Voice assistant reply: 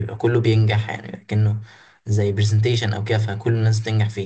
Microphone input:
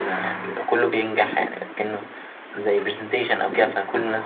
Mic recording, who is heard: echo only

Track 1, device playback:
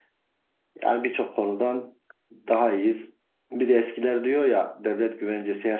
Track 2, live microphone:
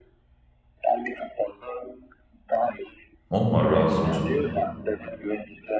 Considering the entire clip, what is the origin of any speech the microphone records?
both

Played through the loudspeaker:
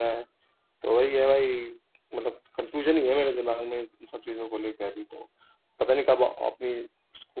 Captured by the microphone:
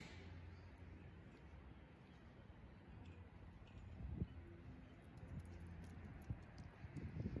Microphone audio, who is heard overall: neither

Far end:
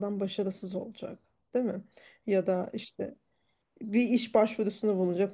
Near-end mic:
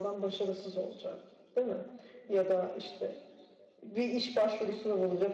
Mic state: echo only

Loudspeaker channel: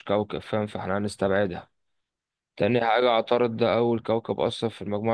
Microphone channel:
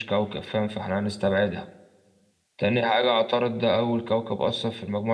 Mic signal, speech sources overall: echo only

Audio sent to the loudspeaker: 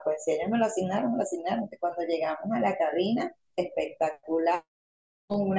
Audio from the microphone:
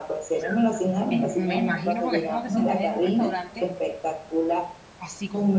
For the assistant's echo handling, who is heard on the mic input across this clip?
both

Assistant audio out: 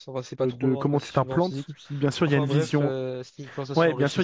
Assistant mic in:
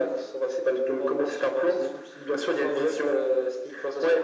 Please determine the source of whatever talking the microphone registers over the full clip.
echo only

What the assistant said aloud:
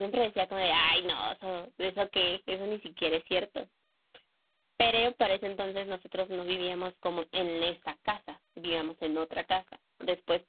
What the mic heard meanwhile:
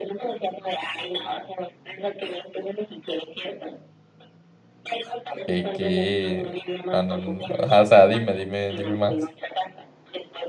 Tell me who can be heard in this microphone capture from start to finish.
both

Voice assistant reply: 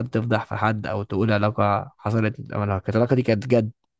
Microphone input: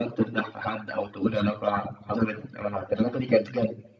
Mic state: echo only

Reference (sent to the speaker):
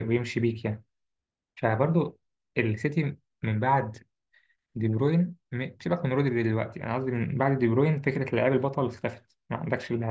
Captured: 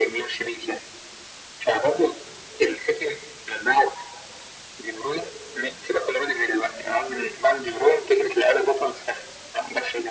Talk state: echo only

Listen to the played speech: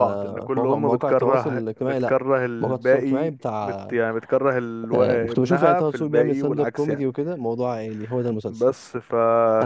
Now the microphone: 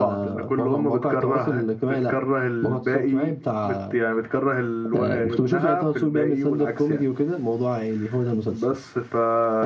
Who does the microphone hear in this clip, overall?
echo only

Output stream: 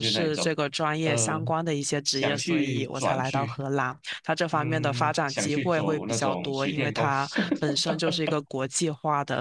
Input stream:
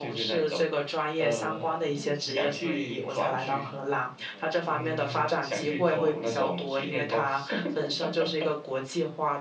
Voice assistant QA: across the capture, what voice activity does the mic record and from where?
both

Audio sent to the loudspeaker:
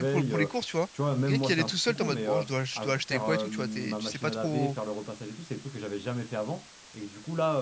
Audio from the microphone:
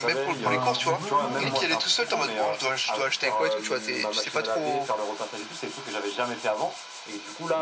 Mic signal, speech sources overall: both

